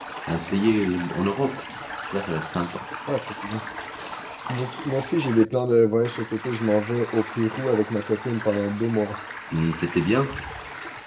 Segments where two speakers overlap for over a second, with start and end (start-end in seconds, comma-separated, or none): none